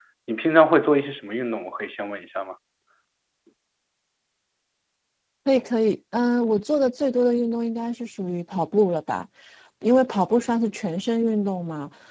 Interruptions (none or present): none